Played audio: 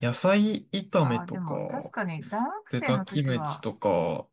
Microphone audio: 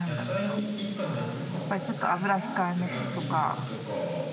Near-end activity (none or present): present